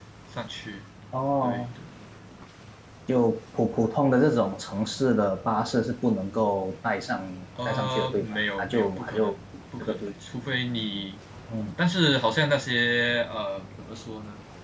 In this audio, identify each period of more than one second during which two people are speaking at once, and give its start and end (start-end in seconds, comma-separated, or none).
7.7-9.3